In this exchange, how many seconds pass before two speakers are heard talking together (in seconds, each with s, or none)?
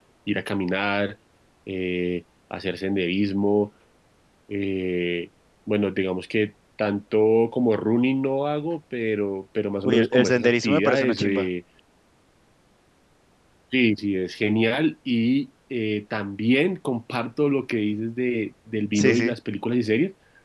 9.8 s